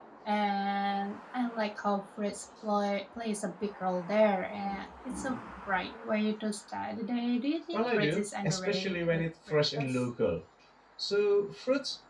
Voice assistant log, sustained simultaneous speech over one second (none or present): present